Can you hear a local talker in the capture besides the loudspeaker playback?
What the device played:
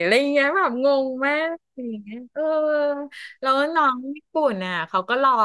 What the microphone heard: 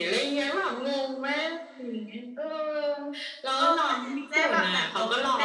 Yes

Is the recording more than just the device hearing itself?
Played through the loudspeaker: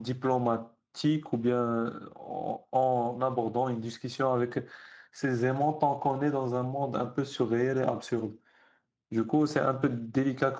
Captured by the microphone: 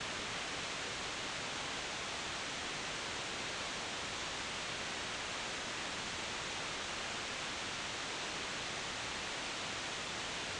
No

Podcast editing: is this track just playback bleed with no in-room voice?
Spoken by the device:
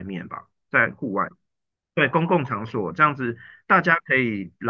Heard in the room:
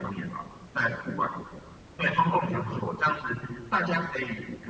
Yes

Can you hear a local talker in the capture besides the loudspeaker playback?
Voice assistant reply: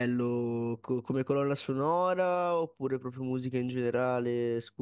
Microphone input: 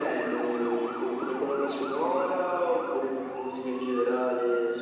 No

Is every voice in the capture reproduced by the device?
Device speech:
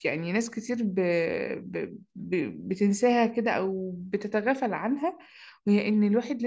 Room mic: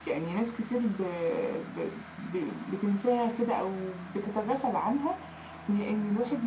Yes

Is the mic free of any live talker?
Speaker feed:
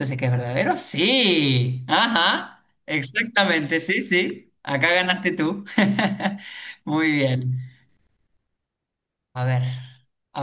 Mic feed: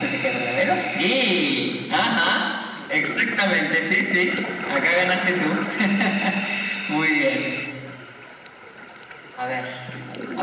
Yes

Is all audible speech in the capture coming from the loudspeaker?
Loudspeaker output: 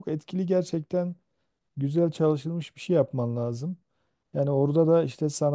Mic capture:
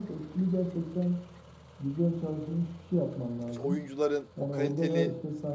No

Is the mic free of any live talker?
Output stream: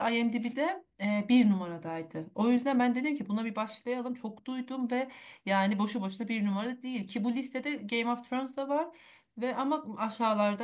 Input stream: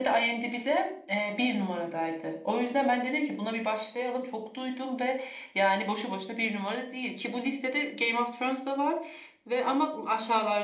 Yes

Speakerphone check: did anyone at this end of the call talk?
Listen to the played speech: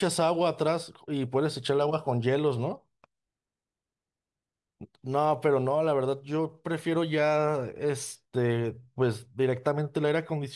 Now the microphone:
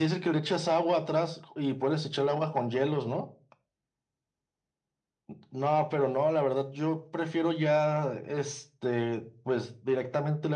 No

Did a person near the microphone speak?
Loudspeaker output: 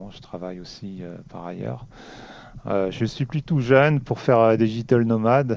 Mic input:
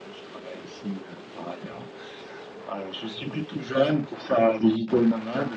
No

